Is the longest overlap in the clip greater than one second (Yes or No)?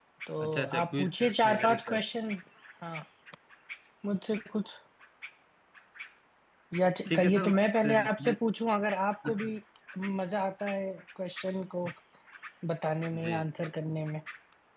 Yes